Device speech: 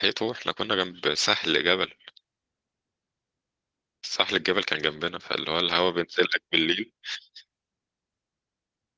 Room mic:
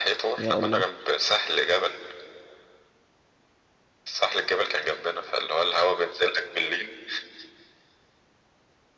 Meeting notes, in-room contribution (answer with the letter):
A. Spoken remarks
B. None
A